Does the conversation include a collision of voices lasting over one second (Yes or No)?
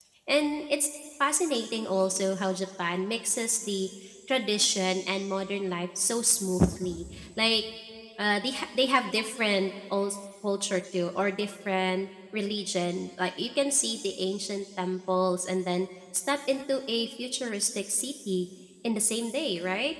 No